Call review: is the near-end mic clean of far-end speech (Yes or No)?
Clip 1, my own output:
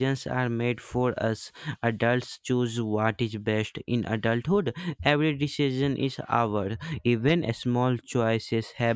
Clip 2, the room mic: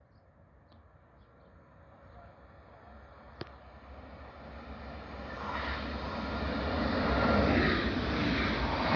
Yes